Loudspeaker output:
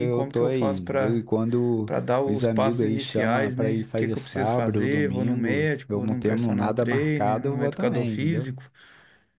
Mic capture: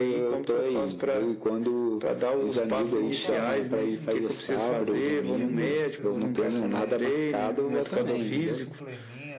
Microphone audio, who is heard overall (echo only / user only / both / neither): both